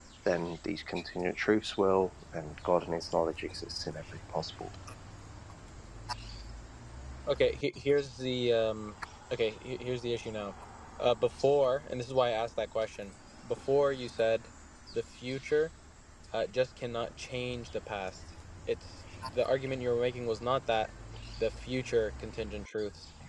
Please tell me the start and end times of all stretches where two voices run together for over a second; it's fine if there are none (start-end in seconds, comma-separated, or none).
none